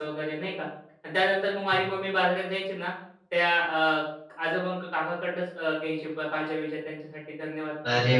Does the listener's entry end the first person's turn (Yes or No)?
Yes